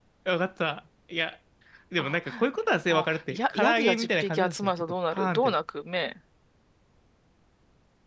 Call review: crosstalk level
present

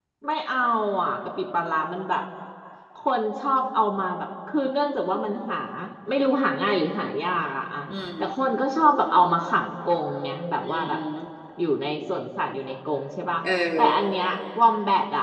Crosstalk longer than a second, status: none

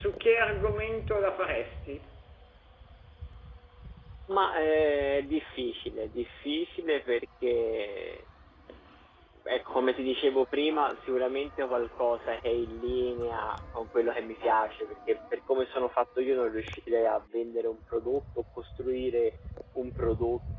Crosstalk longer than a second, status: none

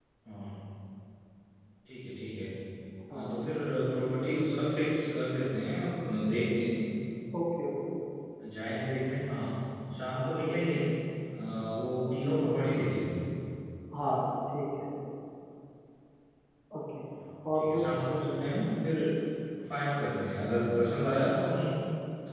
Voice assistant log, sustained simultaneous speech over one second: none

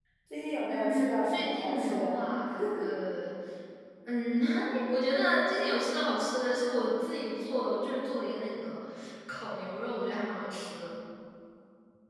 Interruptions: present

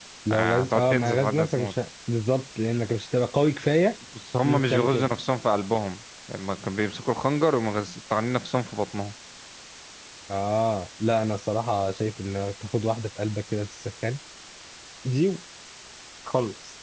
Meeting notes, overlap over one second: present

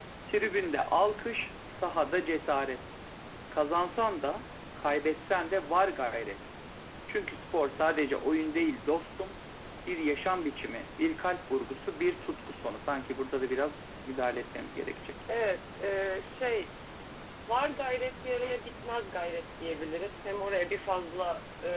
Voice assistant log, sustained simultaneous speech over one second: none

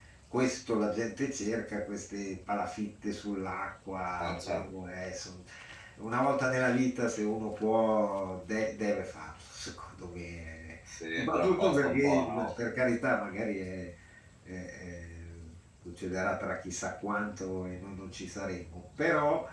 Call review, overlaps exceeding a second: present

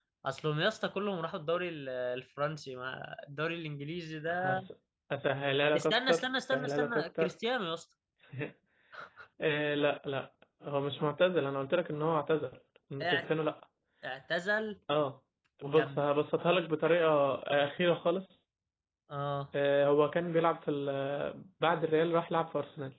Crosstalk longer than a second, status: present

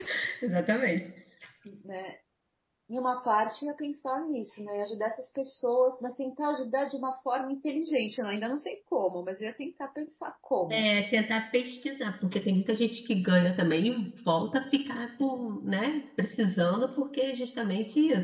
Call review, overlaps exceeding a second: none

